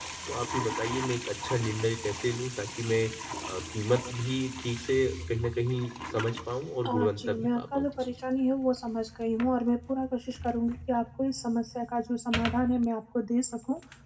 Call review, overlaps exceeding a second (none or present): present